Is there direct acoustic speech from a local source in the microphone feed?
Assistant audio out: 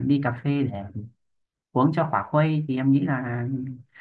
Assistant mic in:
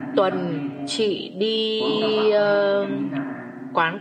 Yes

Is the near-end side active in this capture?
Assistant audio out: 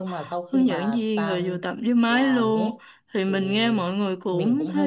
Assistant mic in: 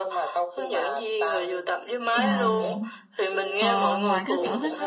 Yes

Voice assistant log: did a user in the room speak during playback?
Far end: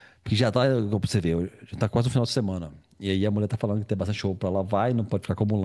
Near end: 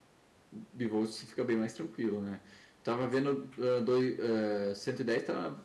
Yes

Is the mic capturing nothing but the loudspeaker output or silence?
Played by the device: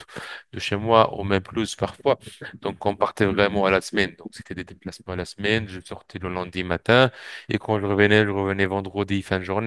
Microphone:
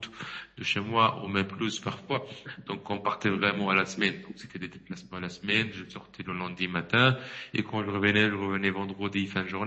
Yes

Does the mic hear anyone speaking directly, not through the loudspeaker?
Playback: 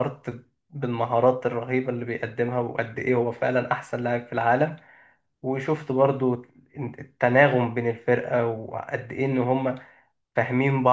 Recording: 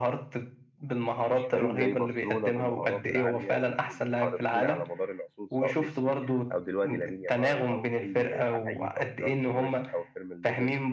Yes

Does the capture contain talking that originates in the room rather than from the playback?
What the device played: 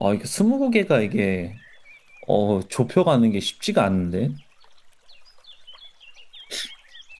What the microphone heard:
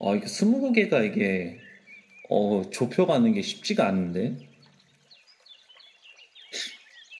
No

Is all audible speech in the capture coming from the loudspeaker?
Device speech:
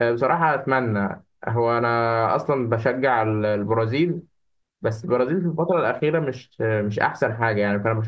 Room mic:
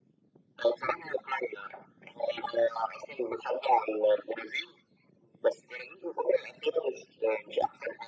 Yes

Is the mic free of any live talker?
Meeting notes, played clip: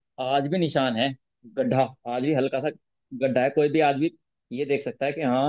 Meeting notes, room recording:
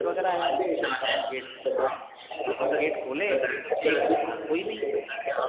No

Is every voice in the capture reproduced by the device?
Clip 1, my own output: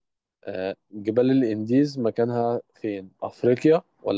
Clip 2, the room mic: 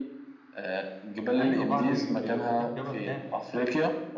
No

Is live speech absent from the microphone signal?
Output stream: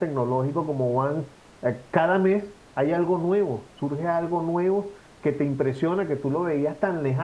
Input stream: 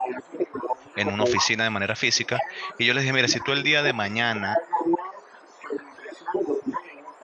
No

